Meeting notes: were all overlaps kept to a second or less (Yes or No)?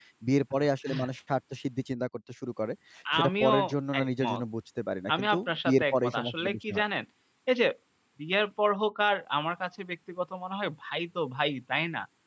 No